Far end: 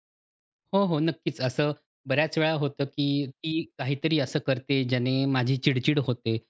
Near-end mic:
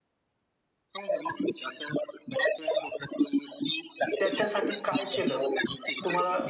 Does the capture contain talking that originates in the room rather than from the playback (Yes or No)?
Yes